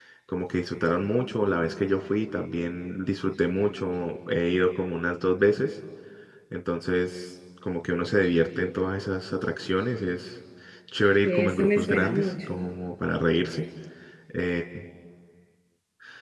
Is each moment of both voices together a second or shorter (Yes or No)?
No